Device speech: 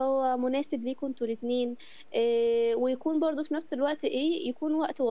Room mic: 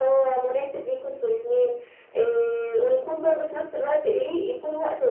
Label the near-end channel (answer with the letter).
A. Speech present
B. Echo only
B